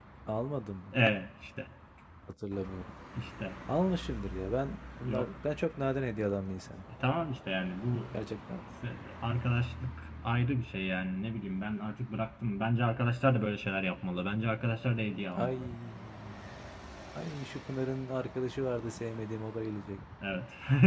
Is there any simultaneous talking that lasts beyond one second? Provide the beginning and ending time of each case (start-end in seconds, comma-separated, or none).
none